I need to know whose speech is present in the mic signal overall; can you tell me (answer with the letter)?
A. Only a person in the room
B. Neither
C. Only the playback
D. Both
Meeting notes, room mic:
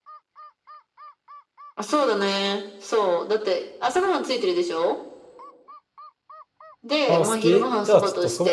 D